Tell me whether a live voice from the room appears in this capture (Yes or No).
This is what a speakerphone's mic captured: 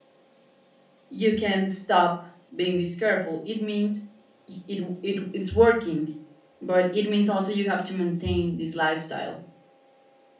Yes